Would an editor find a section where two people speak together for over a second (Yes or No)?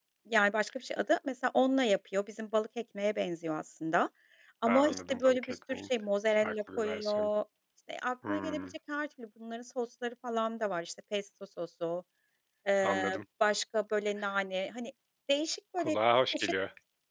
Yes